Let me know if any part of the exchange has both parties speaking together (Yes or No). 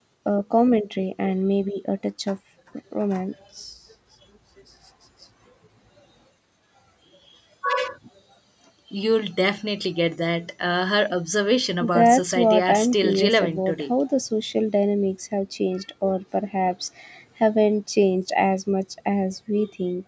Yes